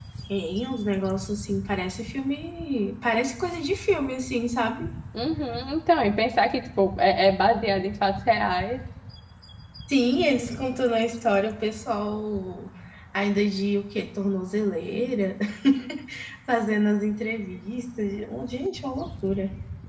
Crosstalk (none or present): none